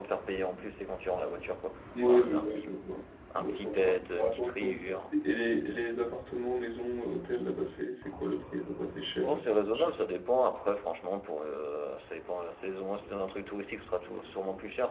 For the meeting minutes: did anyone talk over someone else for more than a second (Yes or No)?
Yes